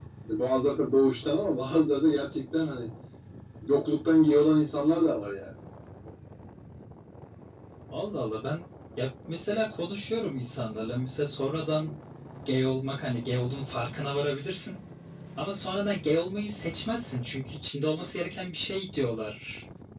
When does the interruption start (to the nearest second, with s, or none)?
none